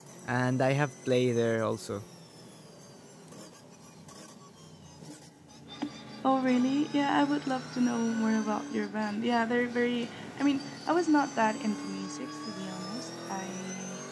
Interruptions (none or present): none